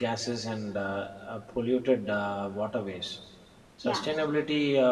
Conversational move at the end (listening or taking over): listening